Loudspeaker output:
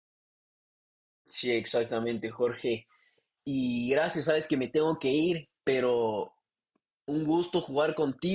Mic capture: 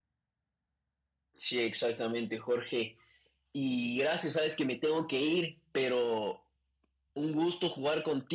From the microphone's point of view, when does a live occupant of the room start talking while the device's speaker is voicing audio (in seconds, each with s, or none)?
none